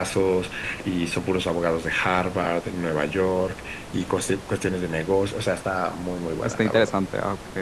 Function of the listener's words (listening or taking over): taking over